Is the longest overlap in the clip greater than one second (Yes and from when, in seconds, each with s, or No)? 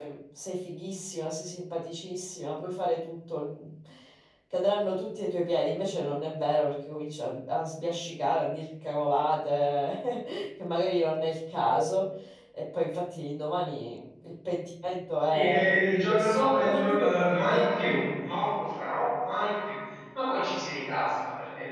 Yes, from 15.3 s